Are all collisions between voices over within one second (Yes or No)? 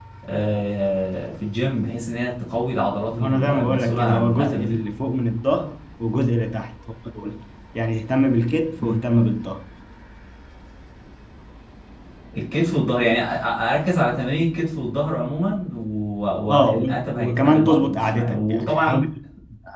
No